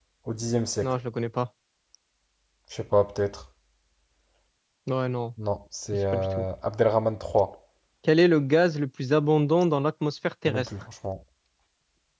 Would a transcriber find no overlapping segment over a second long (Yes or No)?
Yes